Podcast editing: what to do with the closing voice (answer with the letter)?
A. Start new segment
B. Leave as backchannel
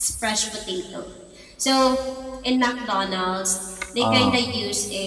B